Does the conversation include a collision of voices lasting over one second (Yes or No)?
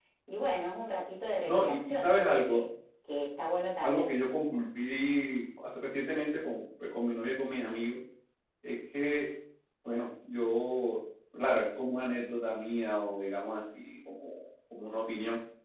Yes